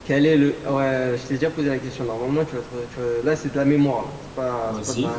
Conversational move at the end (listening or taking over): listening